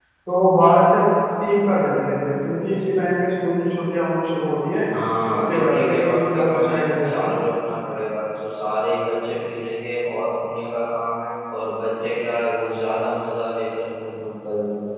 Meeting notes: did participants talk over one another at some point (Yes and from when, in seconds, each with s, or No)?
Yes, from 5.3 s